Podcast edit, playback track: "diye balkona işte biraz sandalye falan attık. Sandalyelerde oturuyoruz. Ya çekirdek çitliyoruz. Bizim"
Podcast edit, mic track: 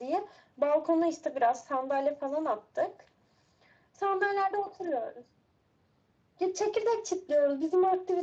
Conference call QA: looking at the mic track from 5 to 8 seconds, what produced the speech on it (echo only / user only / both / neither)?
echo only